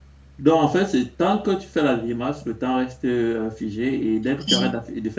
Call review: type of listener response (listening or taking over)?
listening